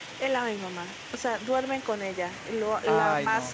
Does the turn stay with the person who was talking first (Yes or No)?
Yes